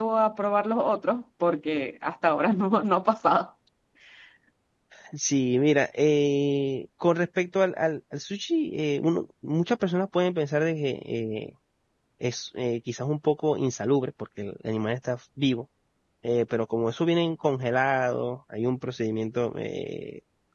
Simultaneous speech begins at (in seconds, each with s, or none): none